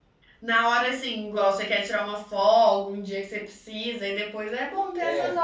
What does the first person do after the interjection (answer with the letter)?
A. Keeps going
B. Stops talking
B